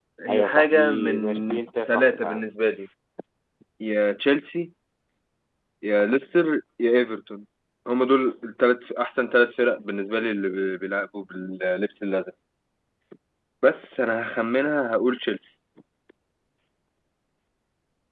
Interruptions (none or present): present